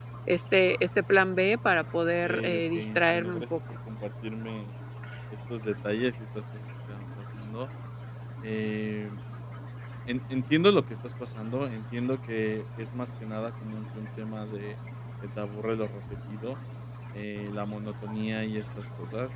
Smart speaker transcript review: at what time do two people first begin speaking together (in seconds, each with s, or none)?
2.2 s